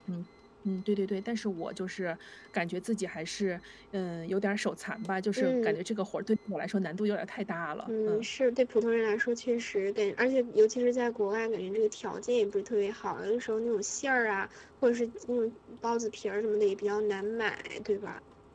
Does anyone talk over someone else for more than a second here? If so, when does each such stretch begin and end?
none

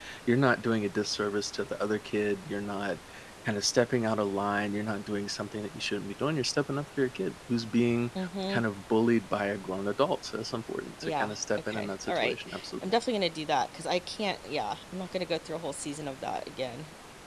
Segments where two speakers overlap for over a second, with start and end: 11.0-12.3

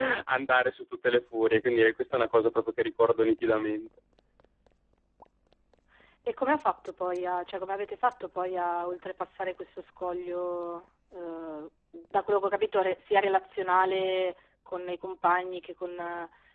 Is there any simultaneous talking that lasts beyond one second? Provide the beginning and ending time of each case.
none

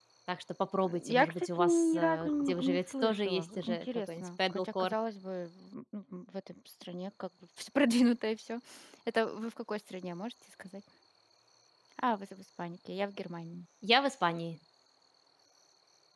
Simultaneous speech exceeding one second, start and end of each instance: 1.1-4.9

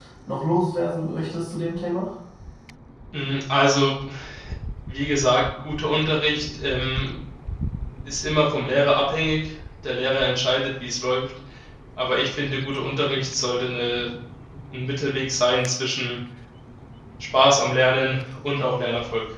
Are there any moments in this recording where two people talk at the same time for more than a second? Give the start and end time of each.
none

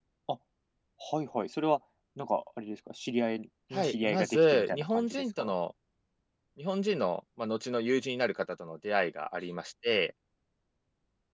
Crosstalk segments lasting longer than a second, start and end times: 3.7-5.5

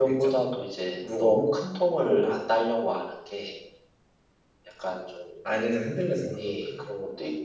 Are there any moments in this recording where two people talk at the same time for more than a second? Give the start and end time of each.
none

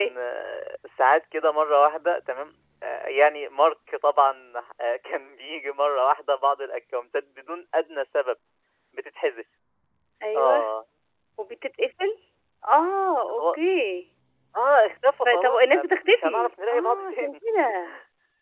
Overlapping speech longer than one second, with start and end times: 15.2-17.4

